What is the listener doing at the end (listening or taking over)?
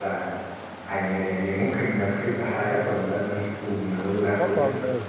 taking over